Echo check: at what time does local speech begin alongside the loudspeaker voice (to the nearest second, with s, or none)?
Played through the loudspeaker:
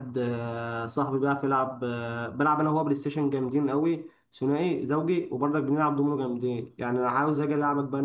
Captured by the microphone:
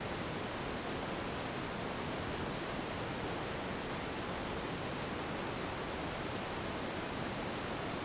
none